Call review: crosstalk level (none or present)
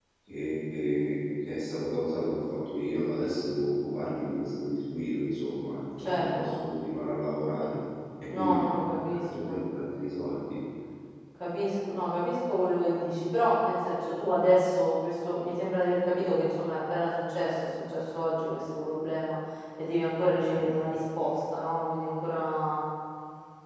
present